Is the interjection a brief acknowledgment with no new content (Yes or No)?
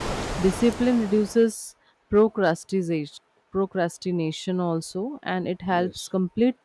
Yes